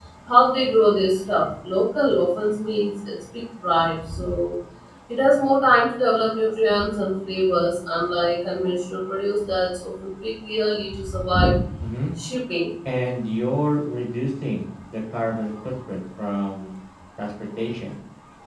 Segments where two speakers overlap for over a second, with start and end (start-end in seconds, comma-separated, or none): none